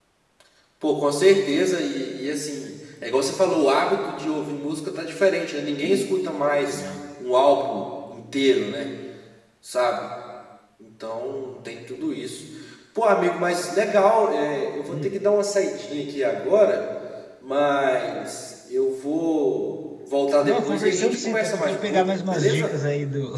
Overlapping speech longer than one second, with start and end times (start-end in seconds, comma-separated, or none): 20.4-22.7